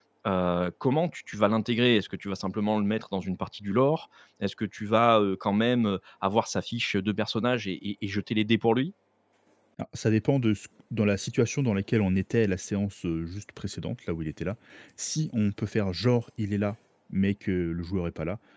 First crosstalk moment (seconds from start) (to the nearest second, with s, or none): none